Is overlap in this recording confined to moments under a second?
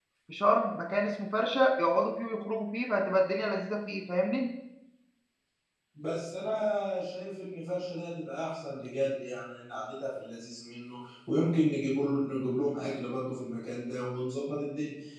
Yes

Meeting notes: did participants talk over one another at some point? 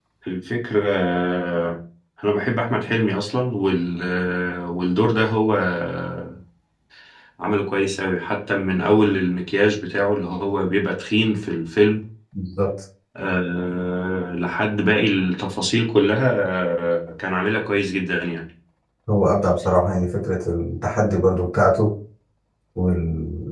No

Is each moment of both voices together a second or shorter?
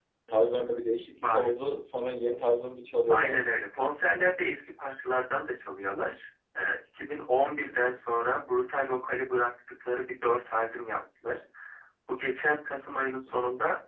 Yes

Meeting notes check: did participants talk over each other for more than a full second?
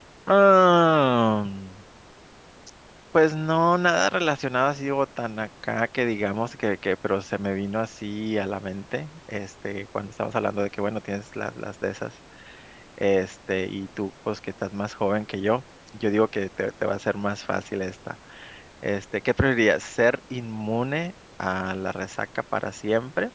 No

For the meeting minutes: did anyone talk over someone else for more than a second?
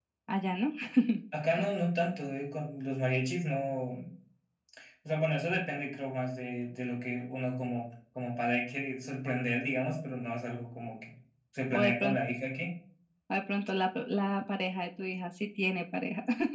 No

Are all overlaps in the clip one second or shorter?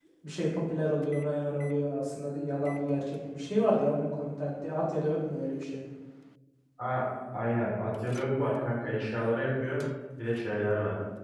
Yes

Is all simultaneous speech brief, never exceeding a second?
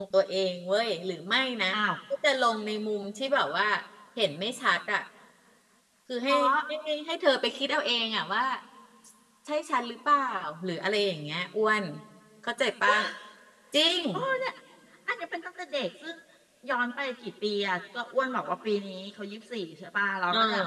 Yes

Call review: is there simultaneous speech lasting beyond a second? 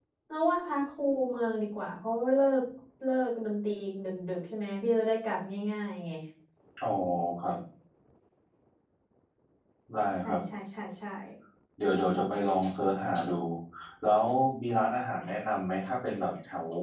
No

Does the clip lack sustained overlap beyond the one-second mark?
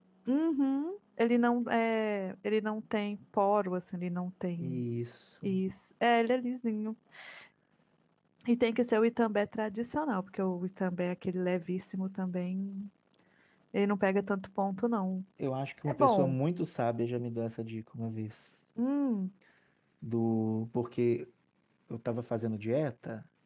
Yes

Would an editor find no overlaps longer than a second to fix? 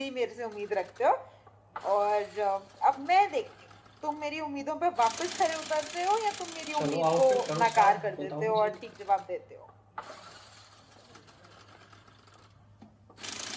No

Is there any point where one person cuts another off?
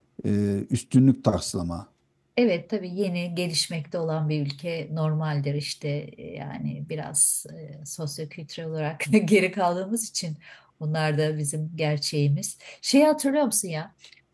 No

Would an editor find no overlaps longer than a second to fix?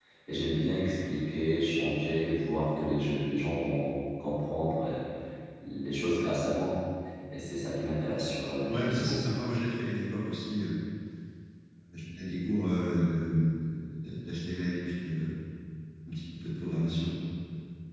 Yes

